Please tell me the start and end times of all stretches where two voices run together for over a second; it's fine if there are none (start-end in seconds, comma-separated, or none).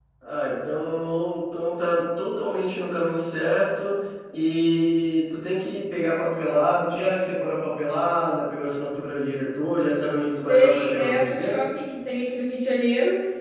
10.3-11.6